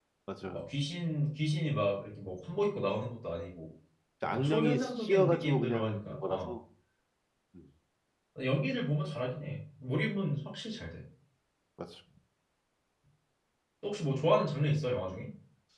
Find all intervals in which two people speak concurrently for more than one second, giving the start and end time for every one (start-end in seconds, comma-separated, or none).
4.2-6.5